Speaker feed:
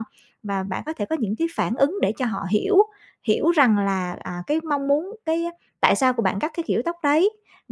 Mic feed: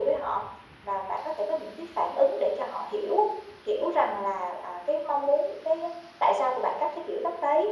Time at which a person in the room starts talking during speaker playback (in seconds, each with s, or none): none